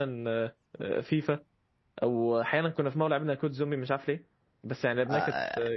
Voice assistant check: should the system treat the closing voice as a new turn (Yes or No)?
Yes